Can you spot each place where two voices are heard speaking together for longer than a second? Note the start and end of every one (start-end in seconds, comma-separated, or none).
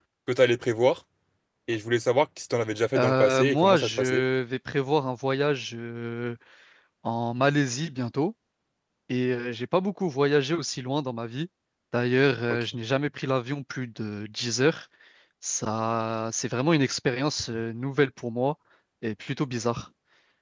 3.0-4.2